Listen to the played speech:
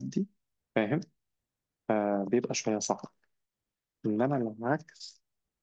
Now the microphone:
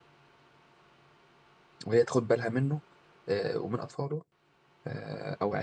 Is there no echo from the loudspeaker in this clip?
Yes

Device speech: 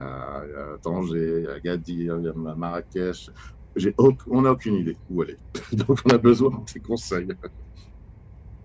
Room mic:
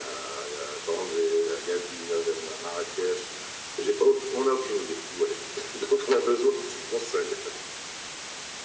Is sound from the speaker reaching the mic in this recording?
Yes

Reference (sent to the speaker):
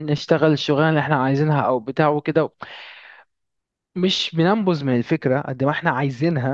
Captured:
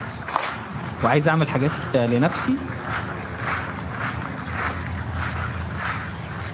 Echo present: No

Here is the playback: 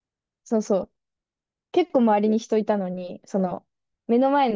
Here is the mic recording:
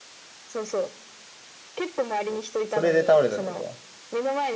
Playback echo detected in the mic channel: Yes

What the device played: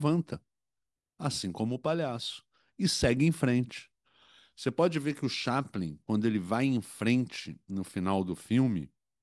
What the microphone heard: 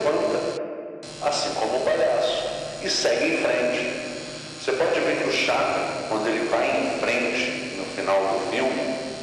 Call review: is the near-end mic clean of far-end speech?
No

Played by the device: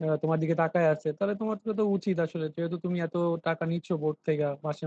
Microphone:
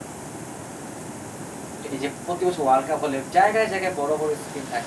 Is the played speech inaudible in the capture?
Yes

